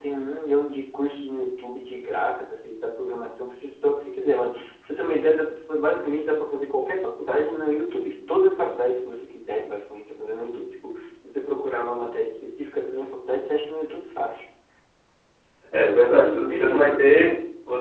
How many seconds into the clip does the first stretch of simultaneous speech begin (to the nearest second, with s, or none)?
16 s